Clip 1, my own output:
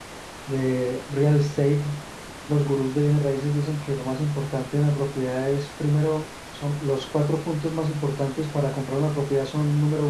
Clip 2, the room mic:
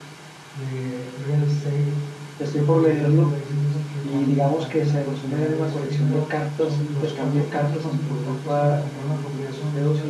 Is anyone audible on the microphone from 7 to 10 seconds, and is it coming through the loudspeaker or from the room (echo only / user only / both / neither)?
both